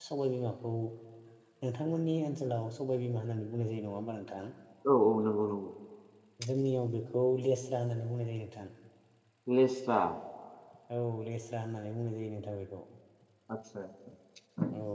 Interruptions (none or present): none